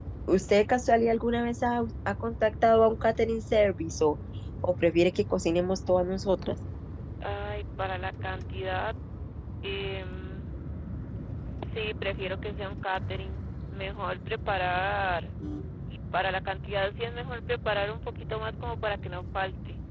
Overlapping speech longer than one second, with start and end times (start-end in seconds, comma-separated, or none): none